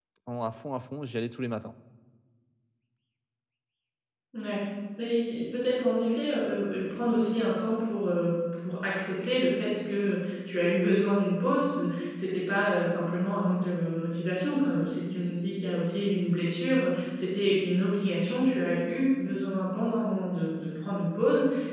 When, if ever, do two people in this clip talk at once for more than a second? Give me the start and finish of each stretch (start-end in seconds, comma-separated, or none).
none